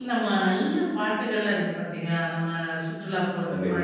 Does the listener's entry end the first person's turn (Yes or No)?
No